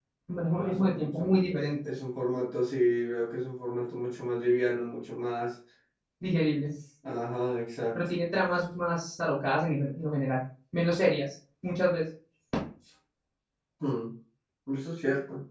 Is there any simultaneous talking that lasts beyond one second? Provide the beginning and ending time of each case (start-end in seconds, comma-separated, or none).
0.5-1.7